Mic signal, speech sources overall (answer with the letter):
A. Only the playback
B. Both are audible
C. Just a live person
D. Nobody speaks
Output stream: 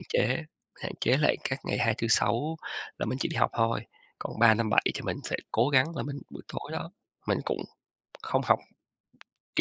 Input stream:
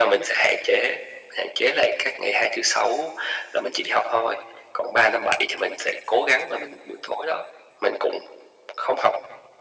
A